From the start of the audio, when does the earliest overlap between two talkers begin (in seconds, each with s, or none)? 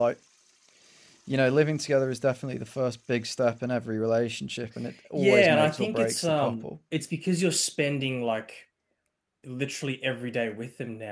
5.2 s